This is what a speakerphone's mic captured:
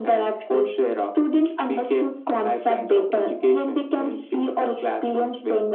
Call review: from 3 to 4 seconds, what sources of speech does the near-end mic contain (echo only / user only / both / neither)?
echo only